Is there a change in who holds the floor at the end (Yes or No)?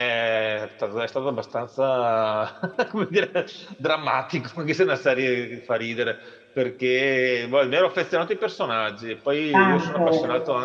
No